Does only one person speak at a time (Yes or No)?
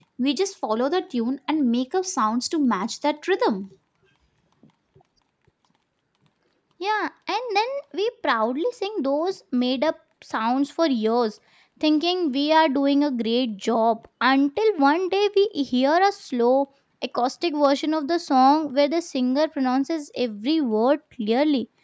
Yes